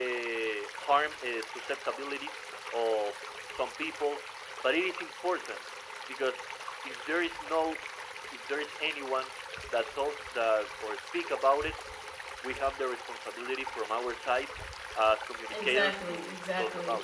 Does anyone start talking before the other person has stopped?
Yes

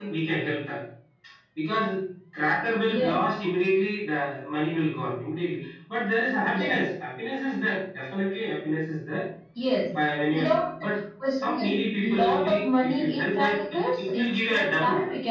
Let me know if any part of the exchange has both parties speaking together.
Yes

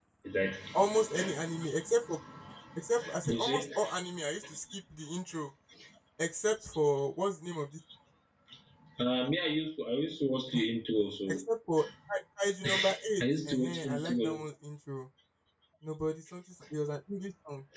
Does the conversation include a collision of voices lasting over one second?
Yes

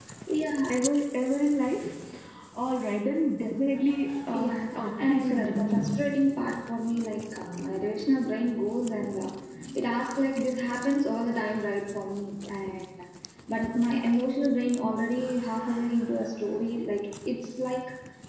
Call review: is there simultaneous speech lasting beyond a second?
Yes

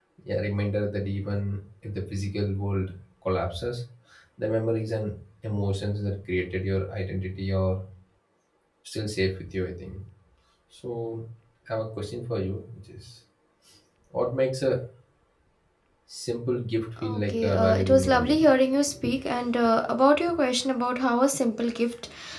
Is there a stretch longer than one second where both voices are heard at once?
Yes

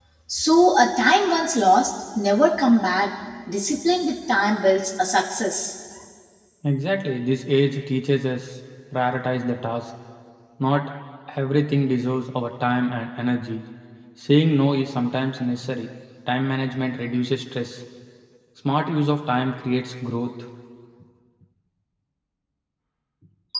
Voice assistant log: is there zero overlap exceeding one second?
Yes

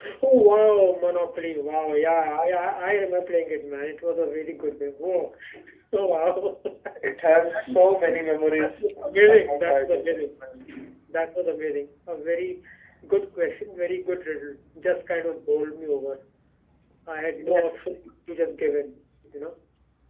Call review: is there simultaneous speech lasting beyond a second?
Yes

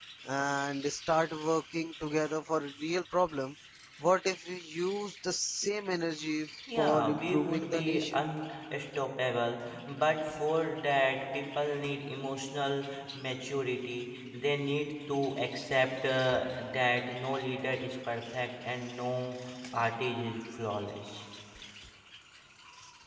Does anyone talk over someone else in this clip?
Yes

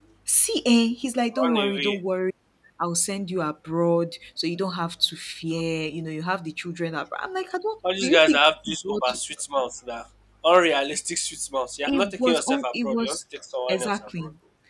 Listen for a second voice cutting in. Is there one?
Yes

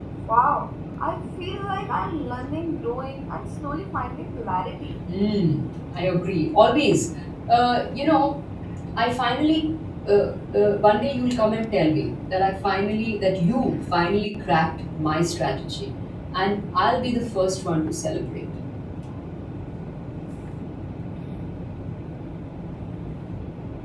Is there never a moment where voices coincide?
Yes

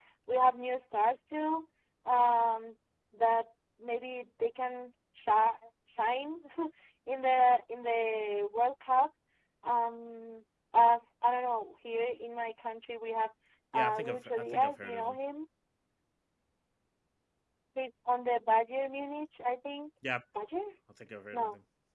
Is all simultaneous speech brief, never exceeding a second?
No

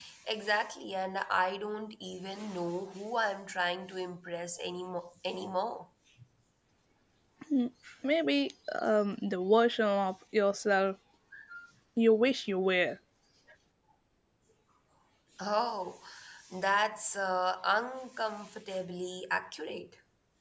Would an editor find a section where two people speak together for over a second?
No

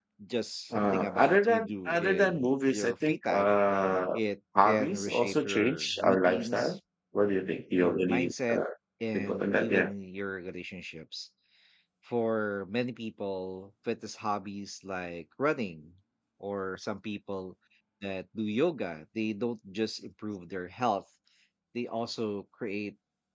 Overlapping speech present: Yes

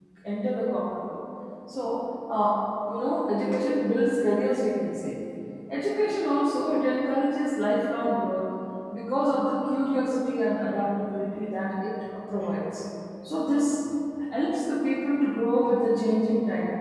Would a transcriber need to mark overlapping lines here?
No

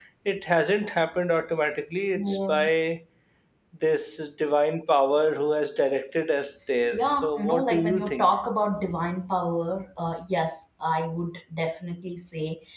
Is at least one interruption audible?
Yes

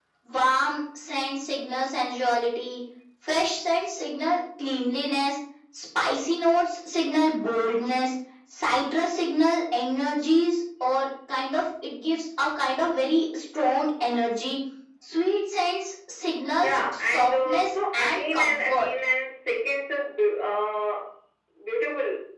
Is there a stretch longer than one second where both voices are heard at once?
Yes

